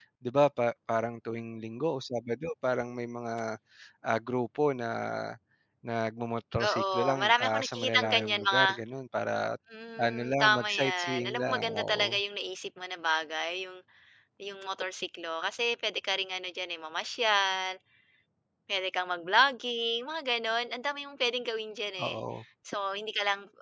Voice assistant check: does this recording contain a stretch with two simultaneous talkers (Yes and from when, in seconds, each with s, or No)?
Yes, from 6.7 s